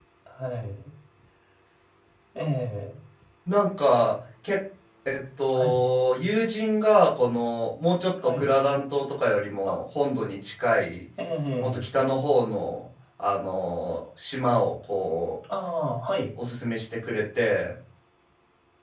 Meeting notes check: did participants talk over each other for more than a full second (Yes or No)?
No